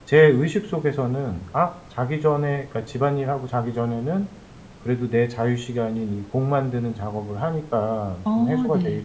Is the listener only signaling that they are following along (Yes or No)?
Yes